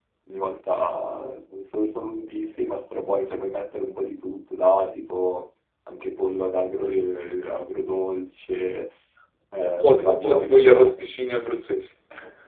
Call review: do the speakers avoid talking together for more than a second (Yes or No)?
No